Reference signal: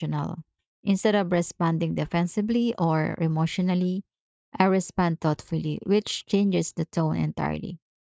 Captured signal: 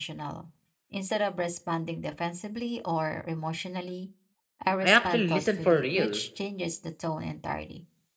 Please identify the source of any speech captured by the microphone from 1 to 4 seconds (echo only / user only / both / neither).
echo only